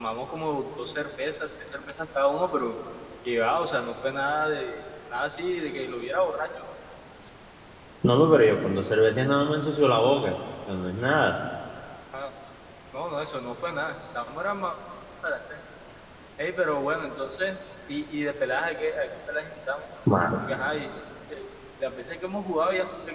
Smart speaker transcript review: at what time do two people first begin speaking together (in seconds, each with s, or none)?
none